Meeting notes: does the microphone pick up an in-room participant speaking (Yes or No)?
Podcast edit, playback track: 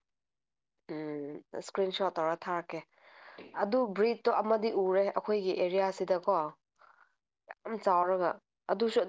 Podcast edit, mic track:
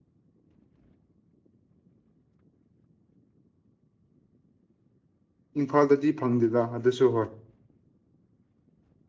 Yes